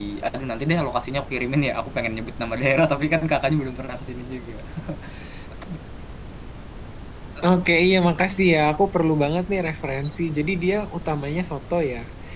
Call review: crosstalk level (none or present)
none